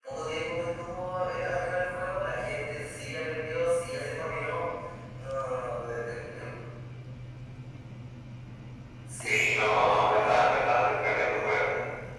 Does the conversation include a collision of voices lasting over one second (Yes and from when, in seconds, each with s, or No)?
Yes, from 9.2 s